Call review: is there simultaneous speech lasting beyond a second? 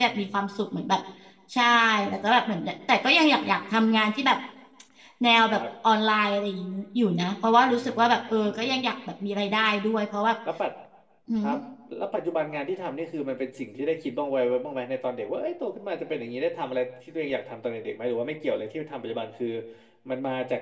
No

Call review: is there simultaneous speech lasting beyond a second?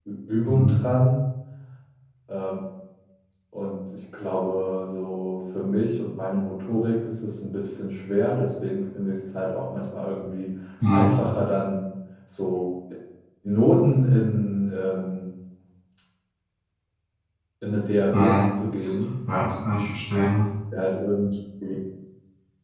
No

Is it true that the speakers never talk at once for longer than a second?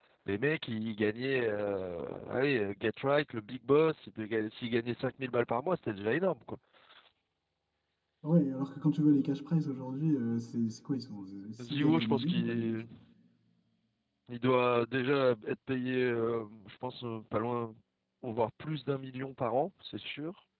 No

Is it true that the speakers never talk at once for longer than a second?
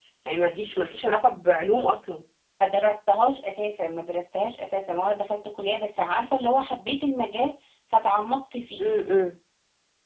Yes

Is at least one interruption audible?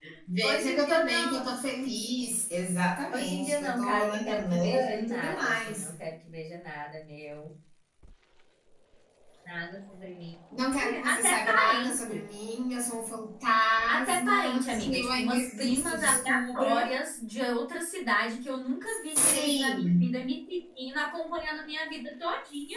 Yes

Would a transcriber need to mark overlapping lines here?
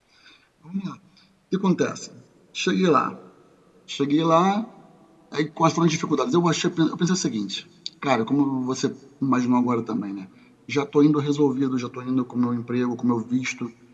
No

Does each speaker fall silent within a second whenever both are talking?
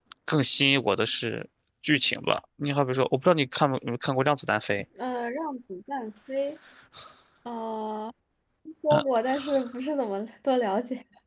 Yes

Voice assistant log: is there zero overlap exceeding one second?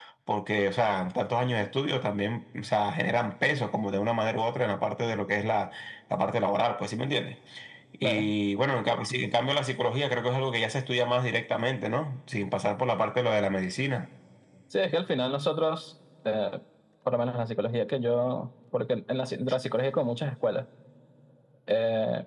Yes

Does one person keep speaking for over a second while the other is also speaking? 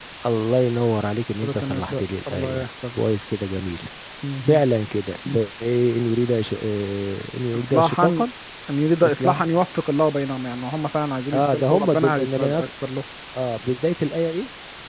Yes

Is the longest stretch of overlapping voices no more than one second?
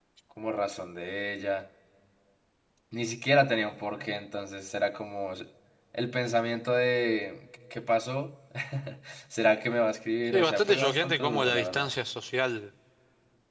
No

